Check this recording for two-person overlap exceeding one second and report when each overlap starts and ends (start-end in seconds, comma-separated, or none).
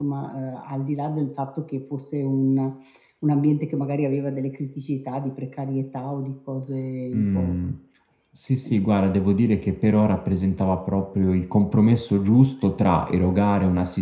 none